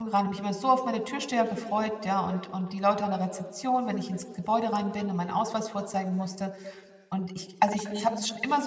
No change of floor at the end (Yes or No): Yes